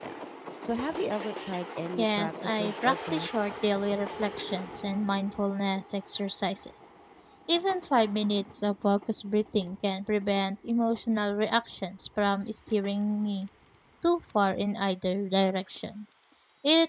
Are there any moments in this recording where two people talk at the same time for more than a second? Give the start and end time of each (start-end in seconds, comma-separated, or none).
2.0-3.3